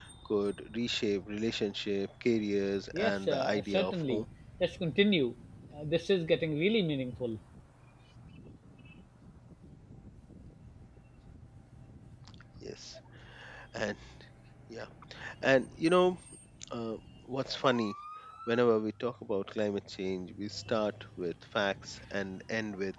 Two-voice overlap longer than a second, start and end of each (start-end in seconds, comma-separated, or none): 2.9-4.2